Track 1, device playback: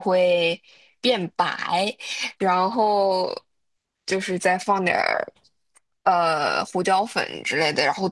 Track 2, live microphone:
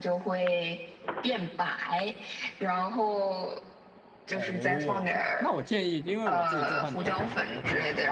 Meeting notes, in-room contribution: present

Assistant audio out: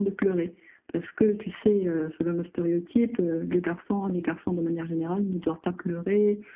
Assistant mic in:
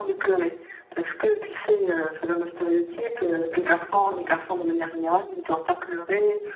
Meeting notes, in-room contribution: none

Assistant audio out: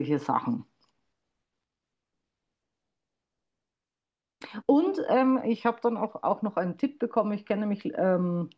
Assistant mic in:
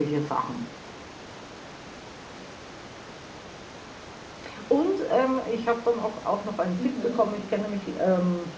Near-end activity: present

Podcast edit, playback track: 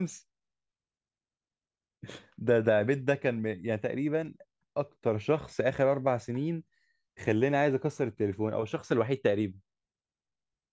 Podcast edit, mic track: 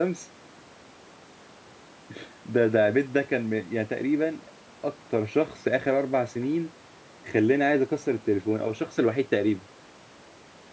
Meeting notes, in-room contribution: none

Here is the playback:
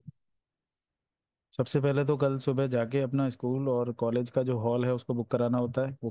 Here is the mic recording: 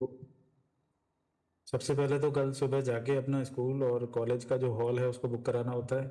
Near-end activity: none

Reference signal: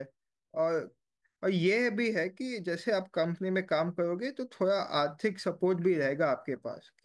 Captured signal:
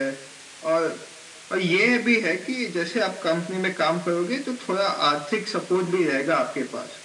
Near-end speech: none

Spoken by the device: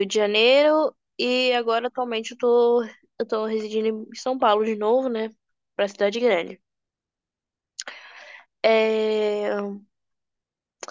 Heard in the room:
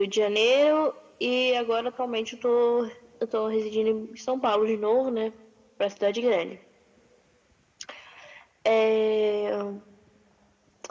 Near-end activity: none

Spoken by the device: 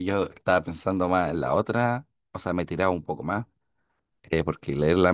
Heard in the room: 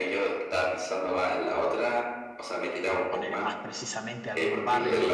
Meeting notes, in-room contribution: present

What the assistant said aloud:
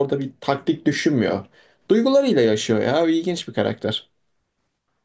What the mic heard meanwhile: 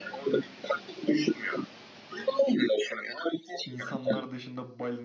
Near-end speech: present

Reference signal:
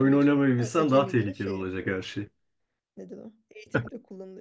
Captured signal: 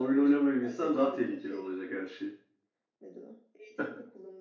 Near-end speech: none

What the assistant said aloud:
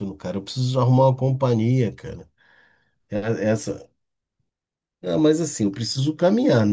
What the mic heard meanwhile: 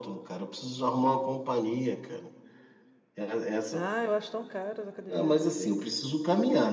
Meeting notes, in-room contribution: present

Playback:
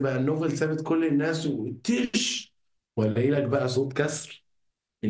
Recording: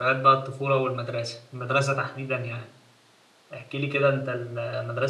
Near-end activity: present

